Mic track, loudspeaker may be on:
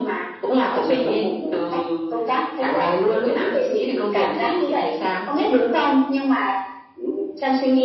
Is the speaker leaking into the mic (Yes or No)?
Yes